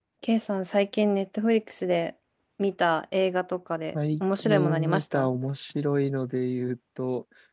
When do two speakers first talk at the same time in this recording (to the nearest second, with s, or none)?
4 s